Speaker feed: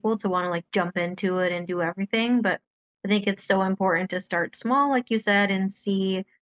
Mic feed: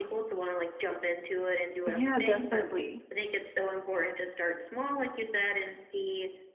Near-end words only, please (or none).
Yeah, definitely,